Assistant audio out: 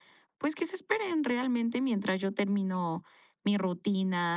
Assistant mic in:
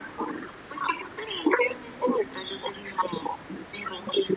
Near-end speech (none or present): none